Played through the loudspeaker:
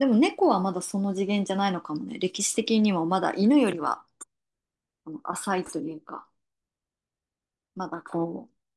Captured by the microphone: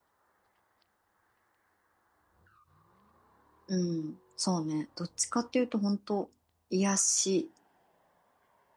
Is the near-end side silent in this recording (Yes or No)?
No